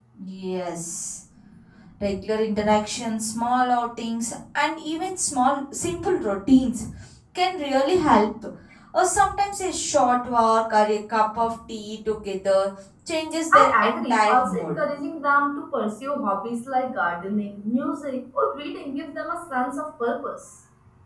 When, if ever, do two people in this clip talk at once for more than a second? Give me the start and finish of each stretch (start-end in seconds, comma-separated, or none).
13.5-14.7